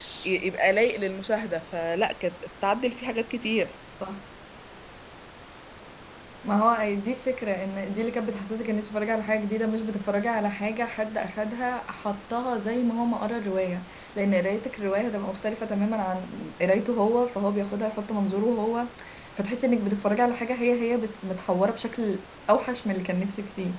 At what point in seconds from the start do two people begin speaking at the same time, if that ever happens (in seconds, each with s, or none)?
none